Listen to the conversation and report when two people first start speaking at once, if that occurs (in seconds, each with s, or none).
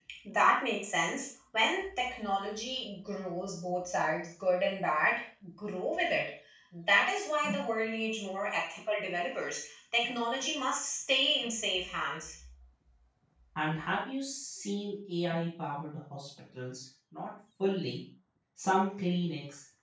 none